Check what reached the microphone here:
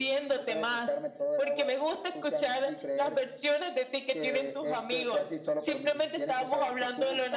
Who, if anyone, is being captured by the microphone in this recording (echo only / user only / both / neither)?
echo only